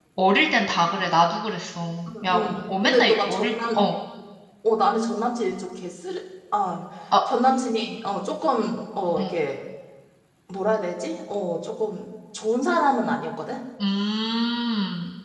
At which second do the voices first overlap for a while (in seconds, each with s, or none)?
2.1 s